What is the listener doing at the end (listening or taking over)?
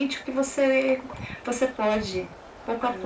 taking over